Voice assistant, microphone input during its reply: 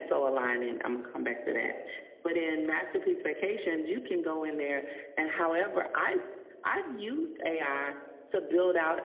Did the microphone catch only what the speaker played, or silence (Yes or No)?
Yes